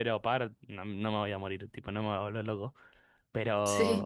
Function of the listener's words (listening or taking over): listening